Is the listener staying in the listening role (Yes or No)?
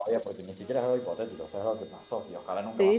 No